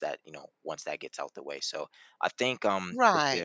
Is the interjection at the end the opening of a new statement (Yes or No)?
Yes